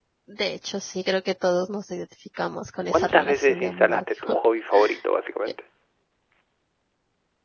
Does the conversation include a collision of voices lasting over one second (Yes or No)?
Yes